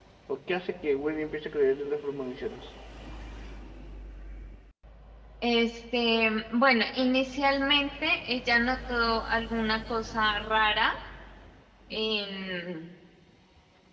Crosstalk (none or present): none